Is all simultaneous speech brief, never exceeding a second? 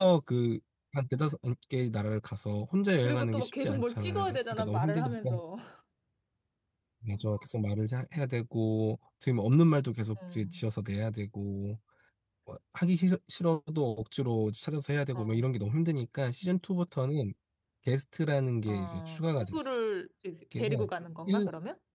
No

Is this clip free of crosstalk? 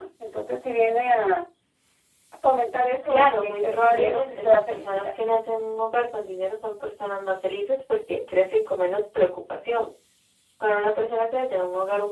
No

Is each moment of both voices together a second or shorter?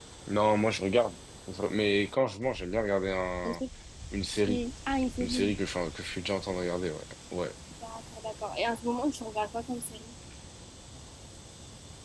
Yes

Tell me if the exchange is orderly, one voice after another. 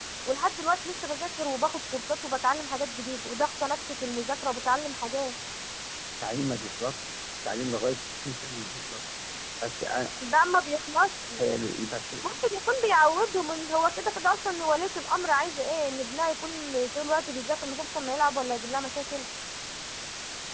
Yes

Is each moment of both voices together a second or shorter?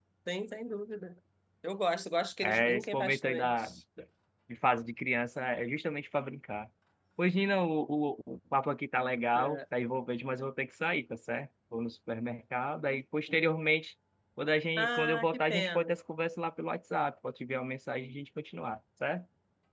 No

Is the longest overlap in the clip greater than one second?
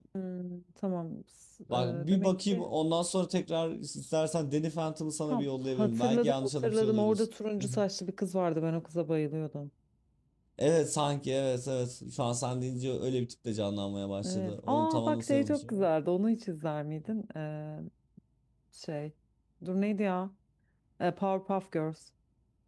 Yes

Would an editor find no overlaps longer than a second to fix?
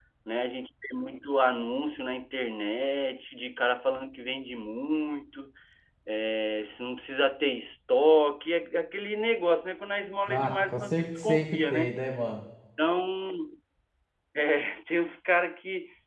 No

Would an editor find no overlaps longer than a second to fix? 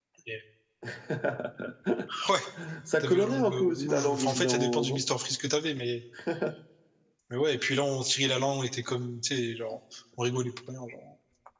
No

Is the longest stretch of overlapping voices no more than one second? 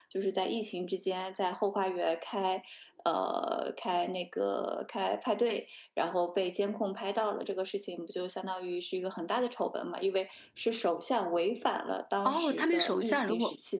No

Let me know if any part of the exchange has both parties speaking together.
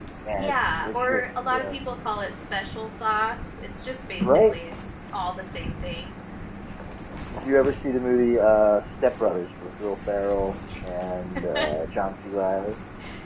Yes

